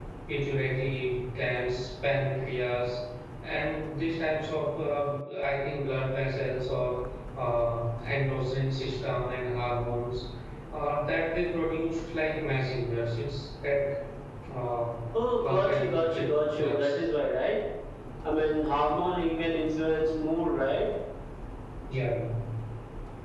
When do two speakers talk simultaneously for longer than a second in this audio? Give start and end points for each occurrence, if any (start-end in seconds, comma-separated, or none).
15.4-17.0